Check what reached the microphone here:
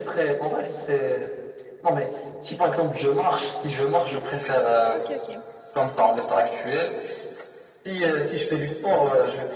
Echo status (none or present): present